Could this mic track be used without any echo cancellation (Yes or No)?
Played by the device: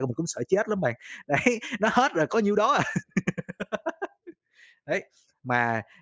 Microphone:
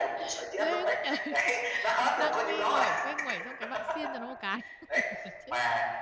No